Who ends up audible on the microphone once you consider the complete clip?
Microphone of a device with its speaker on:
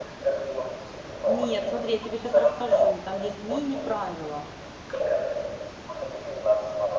both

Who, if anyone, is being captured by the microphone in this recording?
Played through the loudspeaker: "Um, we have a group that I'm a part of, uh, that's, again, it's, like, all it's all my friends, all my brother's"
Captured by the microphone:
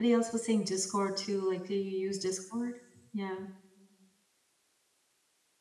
user only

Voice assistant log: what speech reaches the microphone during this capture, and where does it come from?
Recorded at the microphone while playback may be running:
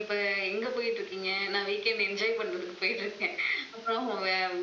echo only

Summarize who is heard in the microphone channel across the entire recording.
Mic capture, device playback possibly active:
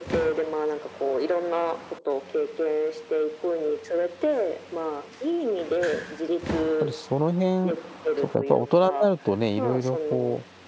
both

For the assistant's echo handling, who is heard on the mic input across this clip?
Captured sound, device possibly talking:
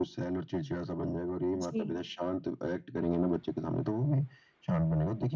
both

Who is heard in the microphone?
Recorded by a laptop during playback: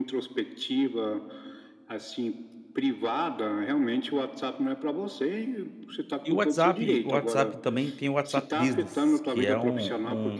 both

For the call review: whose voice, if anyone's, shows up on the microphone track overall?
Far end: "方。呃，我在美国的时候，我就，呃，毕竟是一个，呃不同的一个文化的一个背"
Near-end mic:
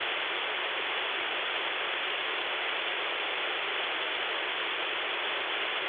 neither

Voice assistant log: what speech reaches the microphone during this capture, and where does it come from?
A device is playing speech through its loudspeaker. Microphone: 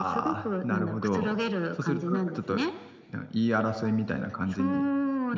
both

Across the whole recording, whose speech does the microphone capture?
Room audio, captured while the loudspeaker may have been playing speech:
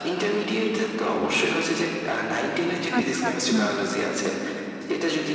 both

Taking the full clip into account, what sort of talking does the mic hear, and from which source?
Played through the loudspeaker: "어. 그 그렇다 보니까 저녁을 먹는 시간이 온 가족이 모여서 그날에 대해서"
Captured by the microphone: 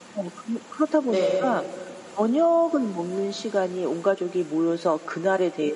both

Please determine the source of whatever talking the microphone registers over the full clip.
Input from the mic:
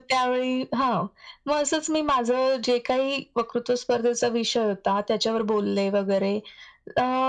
echo only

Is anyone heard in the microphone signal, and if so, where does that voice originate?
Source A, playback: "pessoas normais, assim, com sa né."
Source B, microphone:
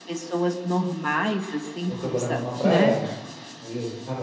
both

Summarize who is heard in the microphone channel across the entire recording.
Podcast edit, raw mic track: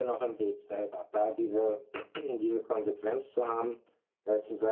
echo only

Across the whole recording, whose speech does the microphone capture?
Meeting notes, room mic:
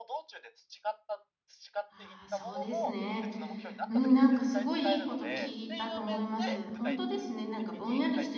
both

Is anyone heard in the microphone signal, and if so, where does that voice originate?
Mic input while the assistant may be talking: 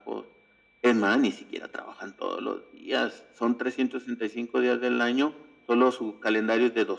echo only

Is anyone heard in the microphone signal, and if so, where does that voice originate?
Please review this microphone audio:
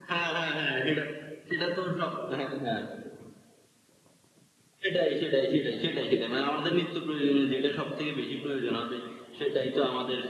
echo only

